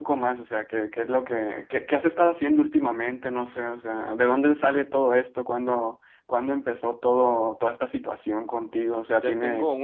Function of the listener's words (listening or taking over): taking over